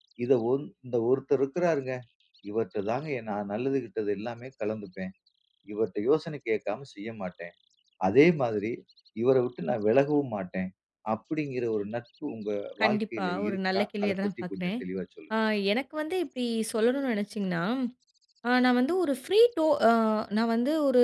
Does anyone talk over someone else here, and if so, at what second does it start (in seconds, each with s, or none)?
12.8 s